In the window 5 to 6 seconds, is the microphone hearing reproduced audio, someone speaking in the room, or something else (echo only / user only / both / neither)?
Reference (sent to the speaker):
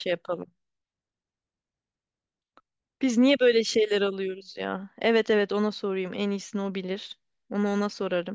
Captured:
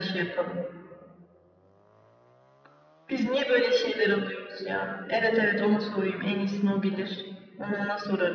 echo only